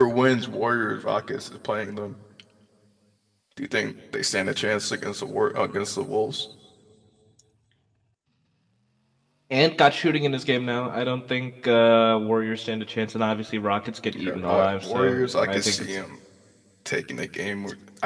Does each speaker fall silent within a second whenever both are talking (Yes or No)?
No